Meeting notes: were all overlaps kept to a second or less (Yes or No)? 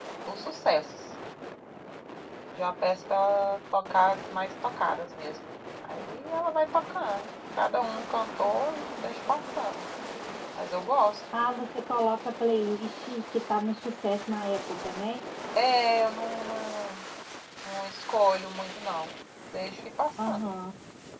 Yes